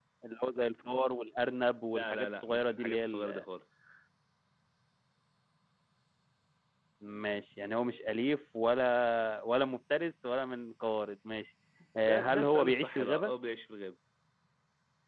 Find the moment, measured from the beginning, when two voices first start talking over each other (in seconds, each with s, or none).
1.9 s